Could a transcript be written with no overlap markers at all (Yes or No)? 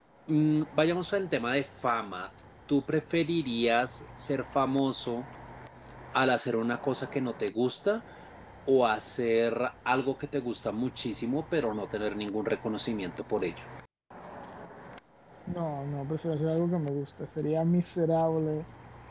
Yes